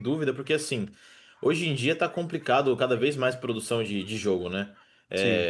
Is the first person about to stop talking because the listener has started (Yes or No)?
No